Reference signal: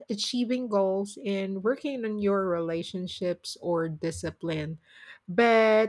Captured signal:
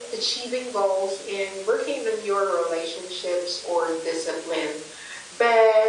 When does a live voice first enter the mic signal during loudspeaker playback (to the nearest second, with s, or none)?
none